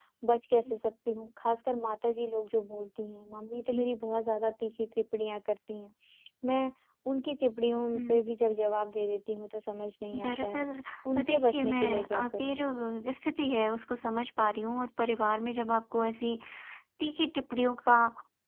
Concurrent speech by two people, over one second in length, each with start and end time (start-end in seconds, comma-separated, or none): 11.2-12.6